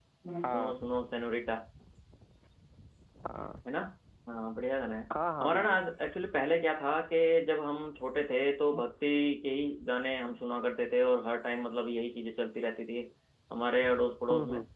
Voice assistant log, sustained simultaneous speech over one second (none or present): none